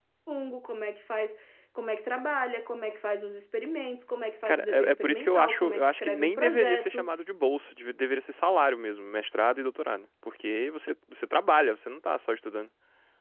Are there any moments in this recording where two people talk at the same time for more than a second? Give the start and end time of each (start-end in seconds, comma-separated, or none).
4.4-7.1